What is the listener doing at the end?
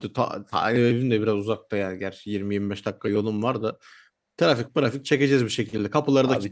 taking over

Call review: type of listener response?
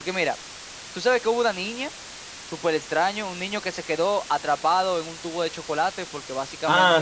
taking over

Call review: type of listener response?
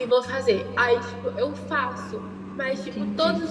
listening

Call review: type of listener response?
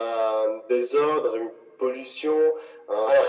taking over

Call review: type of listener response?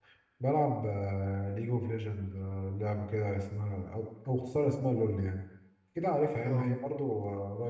listening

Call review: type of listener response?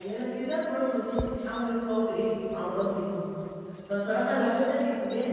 listening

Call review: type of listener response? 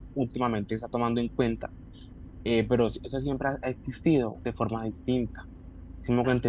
listening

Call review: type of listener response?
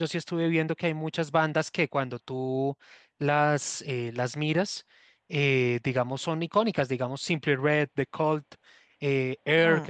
listening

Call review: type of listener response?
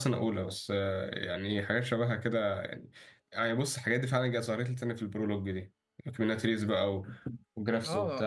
taking over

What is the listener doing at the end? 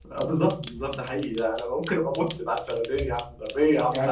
taking over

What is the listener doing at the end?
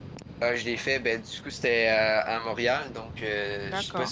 listening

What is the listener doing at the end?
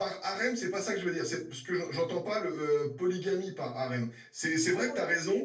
listening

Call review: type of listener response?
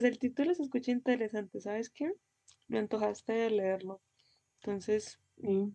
taking over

